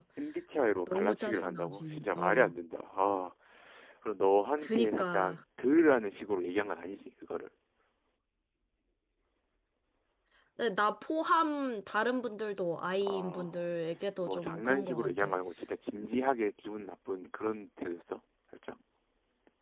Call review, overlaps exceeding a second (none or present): present